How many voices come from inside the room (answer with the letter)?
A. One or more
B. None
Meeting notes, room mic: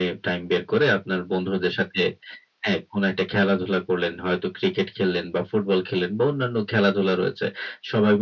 B